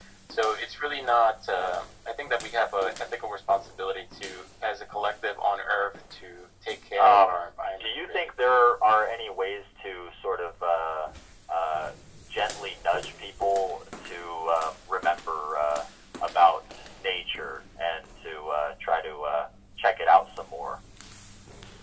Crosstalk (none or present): present